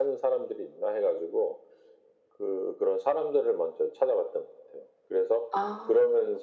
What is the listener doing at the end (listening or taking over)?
listening